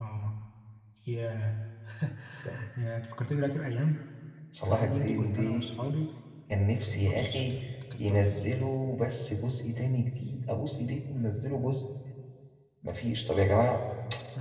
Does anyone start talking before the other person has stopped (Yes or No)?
Yes